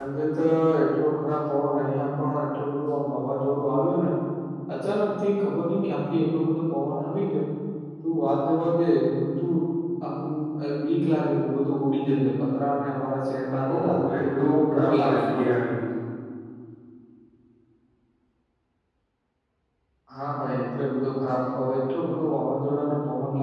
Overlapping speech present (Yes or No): Yes